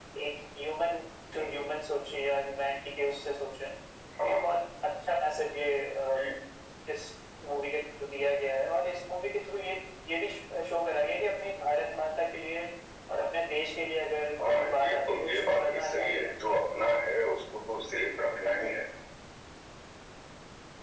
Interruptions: present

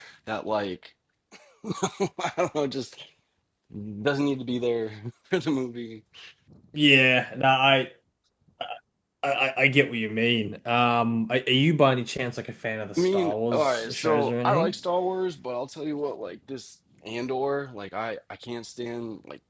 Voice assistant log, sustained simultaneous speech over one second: present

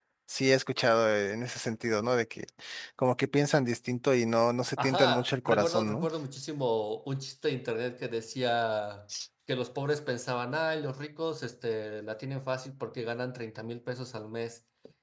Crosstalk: present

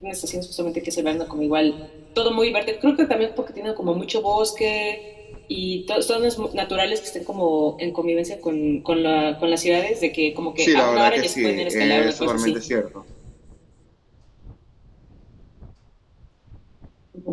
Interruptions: present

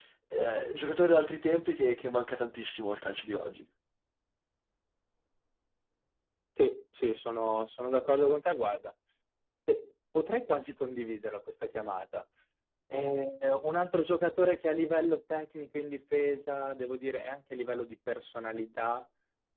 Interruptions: none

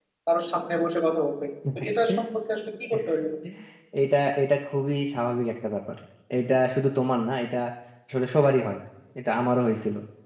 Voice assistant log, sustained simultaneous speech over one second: none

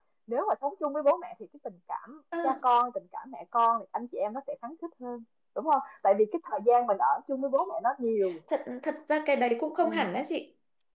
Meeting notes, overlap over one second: none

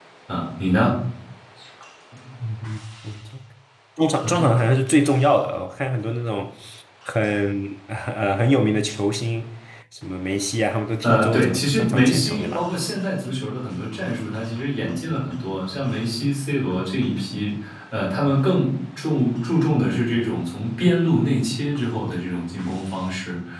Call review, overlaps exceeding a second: present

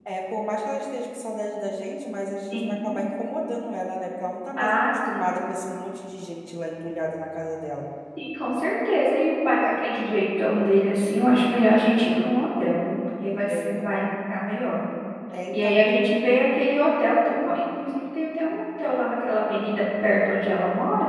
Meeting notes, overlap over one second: none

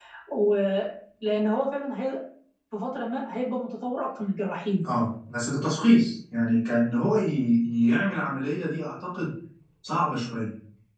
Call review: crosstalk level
none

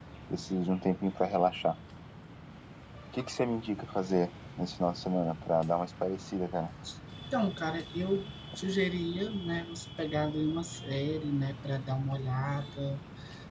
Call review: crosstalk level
none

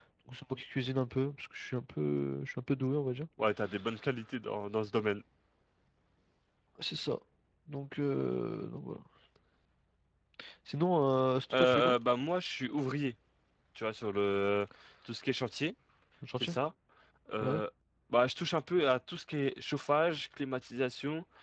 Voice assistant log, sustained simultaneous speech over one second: none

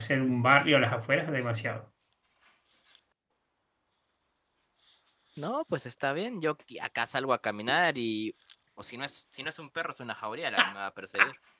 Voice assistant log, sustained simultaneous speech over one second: none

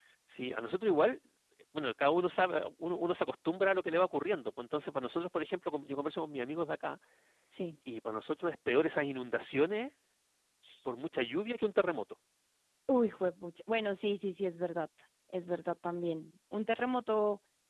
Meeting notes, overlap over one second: none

